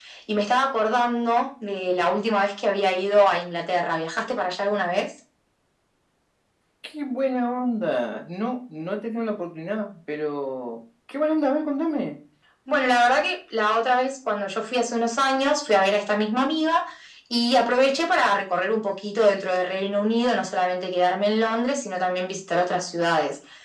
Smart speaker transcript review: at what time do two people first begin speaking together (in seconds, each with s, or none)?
none